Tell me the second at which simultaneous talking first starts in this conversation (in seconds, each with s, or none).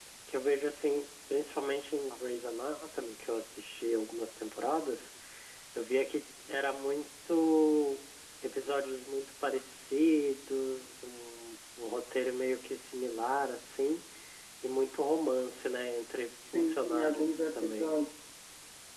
16.4 s